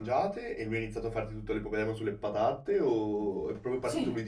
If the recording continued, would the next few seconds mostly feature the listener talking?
Yes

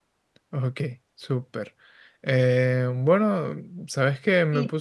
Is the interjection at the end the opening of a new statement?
No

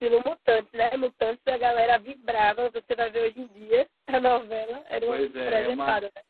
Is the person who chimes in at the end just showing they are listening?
No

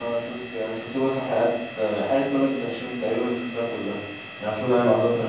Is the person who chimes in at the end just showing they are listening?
Yes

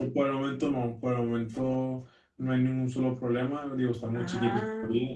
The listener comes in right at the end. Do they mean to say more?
No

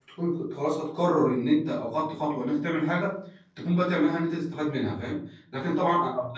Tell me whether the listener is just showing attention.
Yes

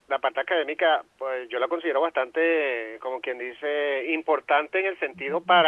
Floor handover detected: No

